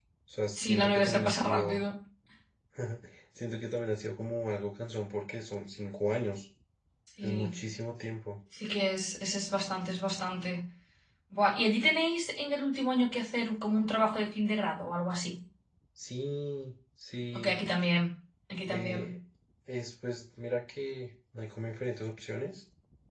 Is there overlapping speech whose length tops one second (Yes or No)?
Yes